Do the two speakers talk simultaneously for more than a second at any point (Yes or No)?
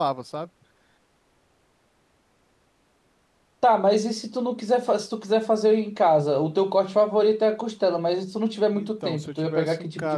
Yes